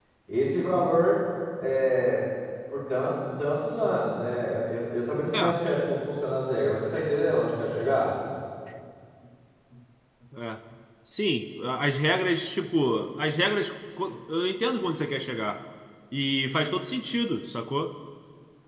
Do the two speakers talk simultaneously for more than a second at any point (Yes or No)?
No